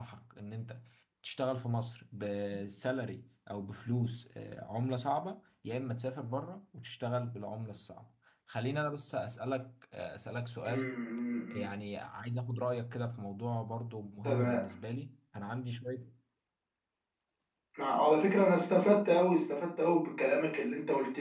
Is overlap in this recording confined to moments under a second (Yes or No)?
Yes